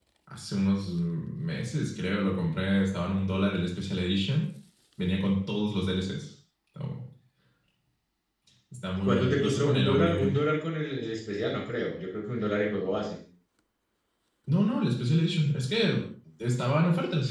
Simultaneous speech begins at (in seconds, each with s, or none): 9.0 s